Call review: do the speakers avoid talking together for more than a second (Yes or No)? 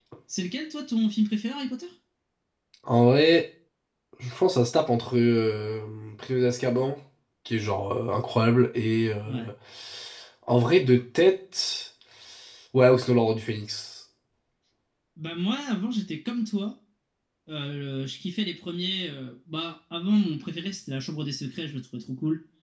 Yes